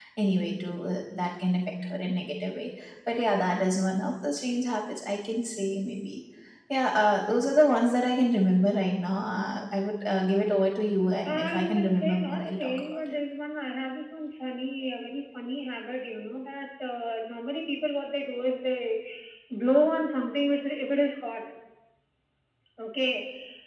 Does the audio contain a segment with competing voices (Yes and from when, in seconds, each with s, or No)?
Yes, from 11.2 s